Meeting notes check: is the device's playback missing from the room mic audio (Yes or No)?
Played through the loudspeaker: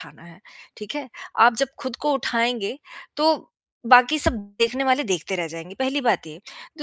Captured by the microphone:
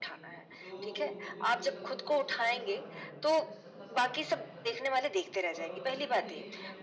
No